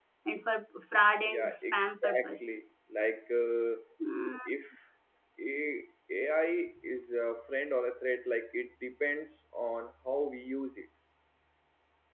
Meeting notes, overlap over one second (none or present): present